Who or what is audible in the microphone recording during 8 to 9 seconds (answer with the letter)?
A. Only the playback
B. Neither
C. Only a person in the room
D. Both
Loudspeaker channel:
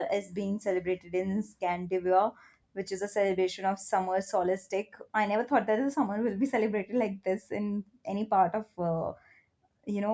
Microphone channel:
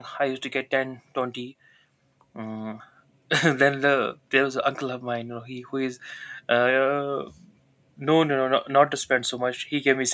C